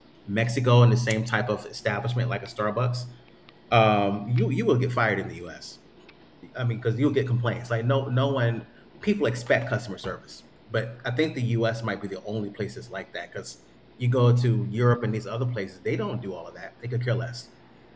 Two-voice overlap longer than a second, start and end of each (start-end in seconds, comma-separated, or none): none